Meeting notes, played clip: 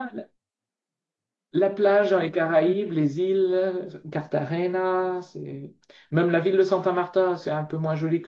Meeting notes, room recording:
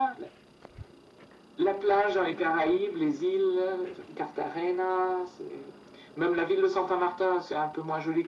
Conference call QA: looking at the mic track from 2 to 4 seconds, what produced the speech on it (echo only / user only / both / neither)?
echo only